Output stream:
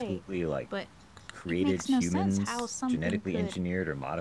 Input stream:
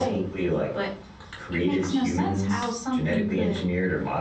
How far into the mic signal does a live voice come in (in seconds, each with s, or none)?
none